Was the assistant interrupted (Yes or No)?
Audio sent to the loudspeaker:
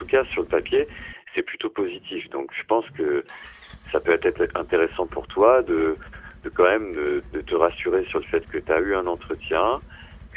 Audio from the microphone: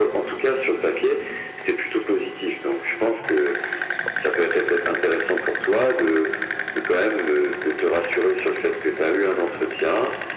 No